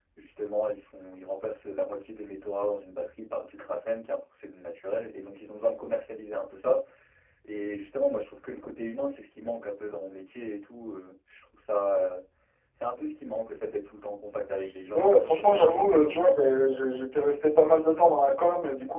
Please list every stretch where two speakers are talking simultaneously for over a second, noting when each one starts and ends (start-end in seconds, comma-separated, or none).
14.9-16.2